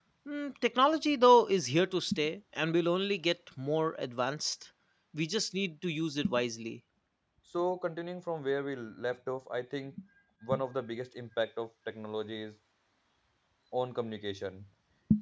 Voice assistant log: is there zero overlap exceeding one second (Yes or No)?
Yes